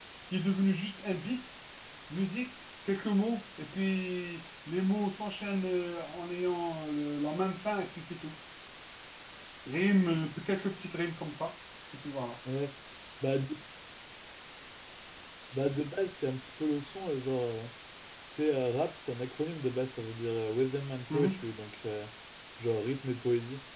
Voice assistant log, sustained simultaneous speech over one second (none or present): none